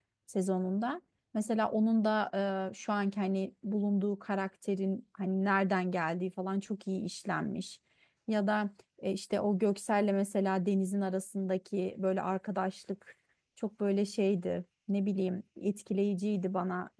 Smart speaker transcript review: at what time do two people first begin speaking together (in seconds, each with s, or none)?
none